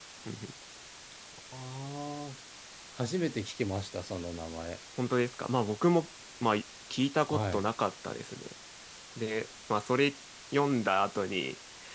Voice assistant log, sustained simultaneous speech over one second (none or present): none